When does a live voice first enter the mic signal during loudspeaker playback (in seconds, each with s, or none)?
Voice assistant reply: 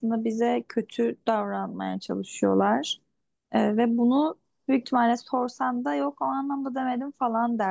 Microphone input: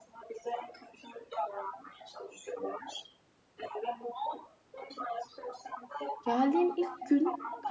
6.2 s